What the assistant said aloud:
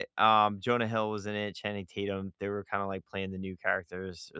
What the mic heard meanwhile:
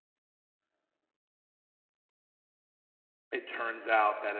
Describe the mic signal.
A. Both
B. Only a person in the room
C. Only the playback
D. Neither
B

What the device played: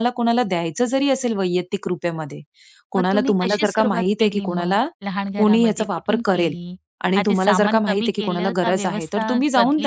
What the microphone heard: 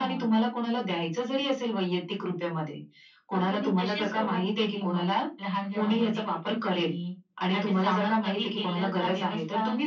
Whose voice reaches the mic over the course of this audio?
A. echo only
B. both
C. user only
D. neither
A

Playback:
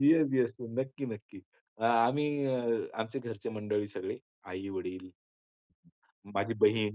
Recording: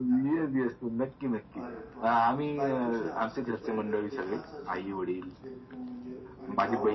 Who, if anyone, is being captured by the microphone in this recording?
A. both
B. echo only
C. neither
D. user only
A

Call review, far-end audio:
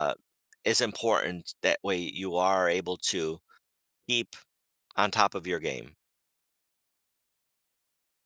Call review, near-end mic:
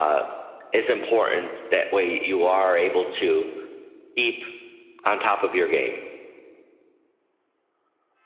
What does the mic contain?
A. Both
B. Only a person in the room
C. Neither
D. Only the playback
D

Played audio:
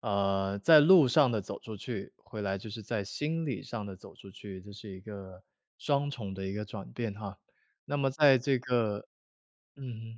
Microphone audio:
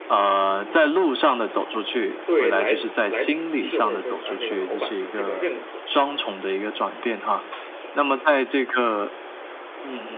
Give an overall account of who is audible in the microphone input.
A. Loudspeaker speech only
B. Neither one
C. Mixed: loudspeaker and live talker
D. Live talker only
C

